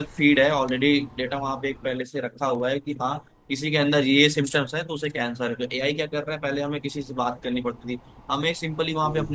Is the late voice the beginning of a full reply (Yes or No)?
No